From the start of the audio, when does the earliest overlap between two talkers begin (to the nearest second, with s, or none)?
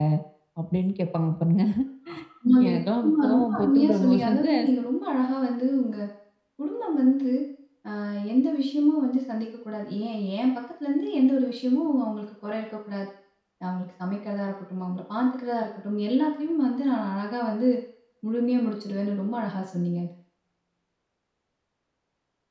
3 s